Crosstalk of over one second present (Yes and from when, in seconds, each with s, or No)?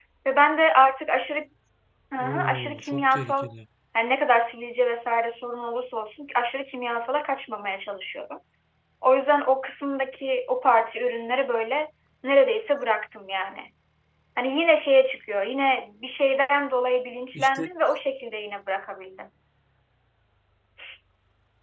Yes, from 2.2 s